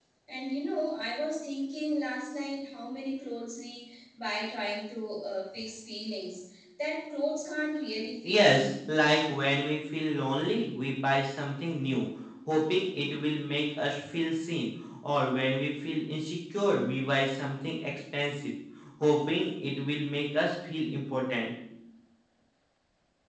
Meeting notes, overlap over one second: none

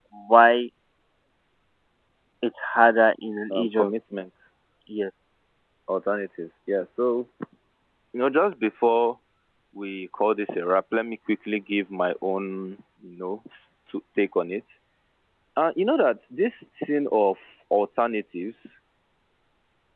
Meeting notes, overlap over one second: none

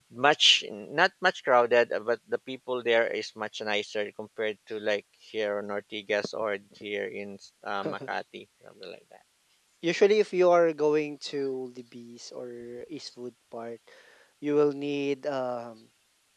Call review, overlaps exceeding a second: none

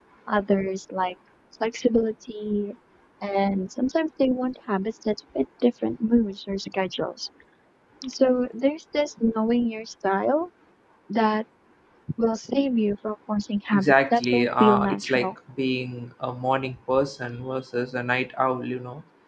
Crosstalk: present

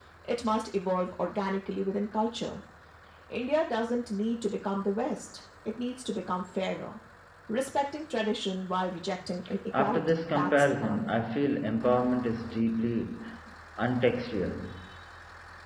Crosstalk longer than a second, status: present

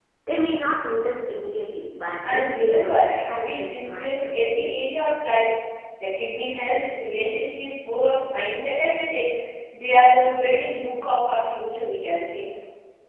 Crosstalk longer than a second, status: present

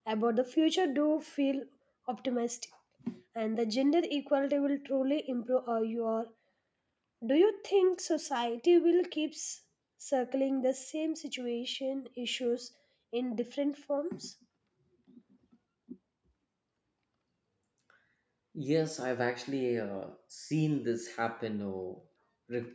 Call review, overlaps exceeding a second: none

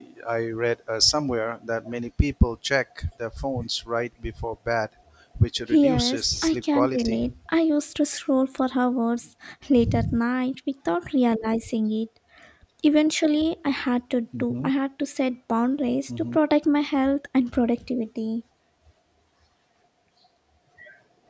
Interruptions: present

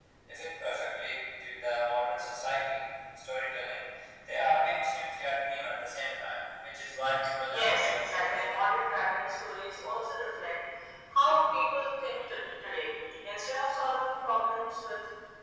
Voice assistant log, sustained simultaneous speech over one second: present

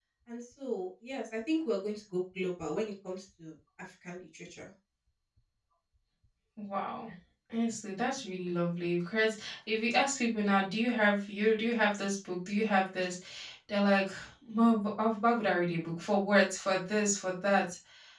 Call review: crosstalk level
none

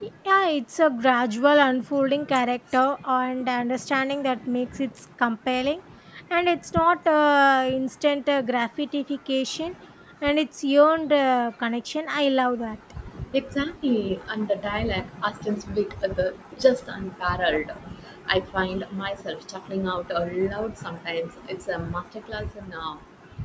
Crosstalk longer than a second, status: none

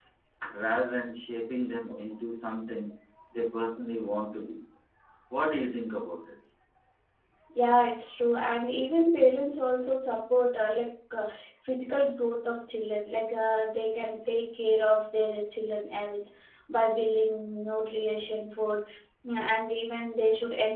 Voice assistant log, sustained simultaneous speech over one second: none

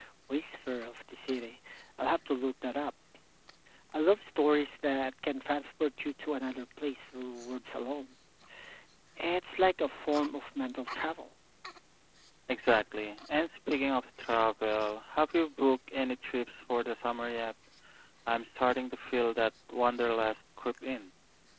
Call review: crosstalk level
none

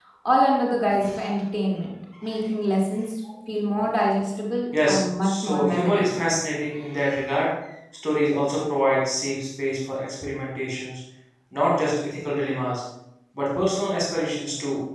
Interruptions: present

